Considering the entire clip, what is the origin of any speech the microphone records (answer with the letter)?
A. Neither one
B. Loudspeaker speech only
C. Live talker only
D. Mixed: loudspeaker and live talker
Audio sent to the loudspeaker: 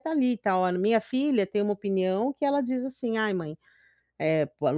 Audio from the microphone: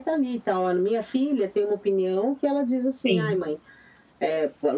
D